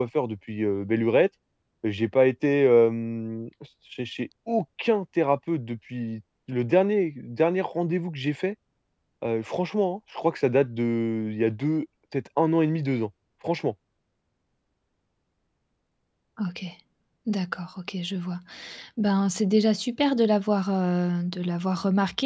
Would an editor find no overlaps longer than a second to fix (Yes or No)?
Yes